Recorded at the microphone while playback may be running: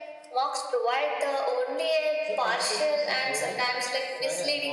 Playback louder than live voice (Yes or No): Yes